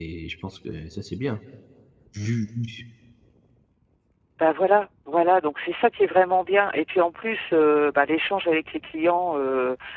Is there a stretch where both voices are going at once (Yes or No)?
No